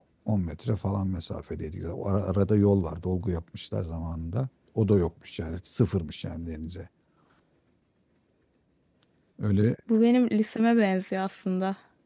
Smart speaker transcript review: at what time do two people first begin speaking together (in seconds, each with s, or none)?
none